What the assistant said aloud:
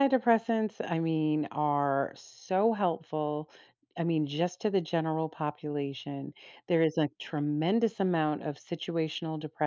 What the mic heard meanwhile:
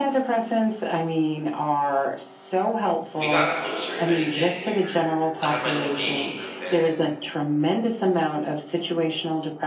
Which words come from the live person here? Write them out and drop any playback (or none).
we got closer, if anything, we were I have my little gaming group, and